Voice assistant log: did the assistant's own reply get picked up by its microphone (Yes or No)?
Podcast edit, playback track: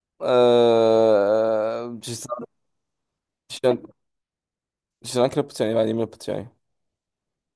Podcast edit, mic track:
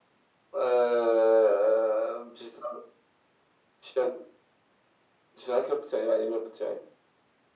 Yes